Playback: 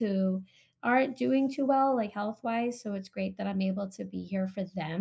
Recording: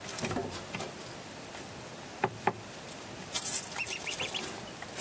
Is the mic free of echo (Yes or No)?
Yes